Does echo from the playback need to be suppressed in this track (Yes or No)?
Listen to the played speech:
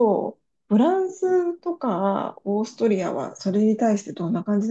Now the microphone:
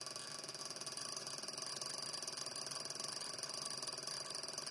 No